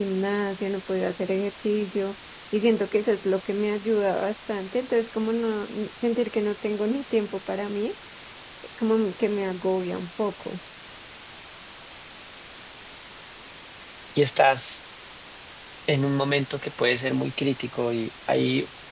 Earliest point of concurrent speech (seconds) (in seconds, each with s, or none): none